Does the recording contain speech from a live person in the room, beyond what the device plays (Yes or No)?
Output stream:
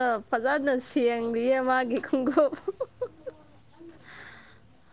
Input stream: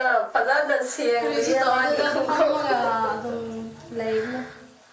Yes